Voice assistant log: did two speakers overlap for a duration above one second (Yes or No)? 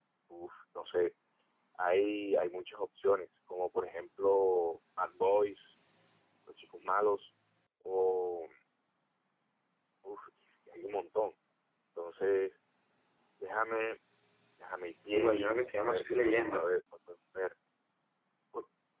Yes